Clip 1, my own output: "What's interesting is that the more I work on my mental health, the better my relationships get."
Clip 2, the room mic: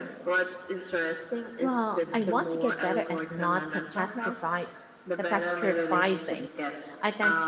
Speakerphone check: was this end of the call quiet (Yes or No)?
No